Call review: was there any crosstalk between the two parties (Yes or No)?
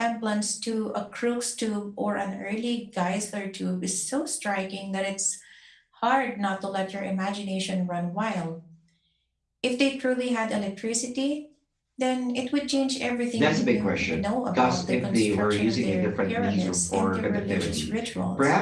Yes